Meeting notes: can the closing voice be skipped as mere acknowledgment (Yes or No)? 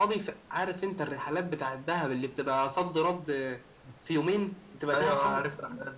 No